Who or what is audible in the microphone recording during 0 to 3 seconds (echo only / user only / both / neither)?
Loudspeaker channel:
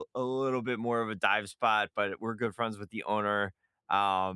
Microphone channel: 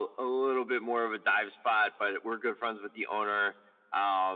echo only